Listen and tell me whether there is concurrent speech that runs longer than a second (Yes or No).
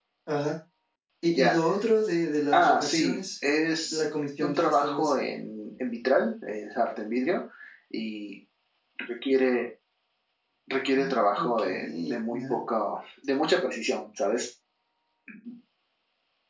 Yes